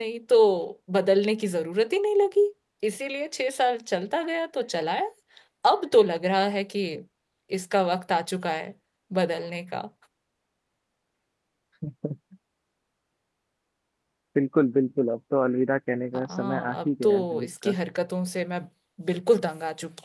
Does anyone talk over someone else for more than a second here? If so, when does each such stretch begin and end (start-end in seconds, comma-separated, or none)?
16.2-17.8